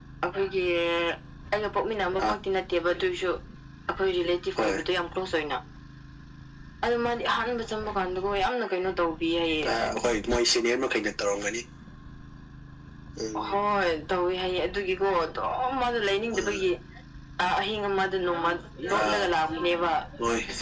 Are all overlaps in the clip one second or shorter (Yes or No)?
Yes